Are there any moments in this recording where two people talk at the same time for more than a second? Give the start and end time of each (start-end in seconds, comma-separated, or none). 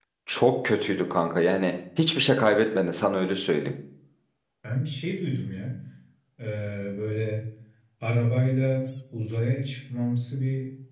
none